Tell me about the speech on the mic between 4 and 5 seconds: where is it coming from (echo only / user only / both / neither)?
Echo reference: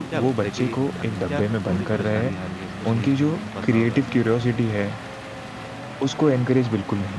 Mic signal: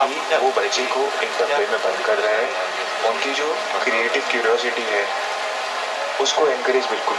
echo only